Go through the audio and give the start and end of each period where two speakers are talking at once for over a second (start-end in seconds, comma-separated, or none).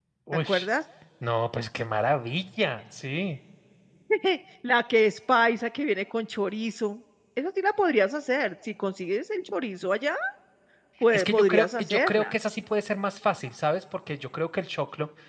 11.1-12.3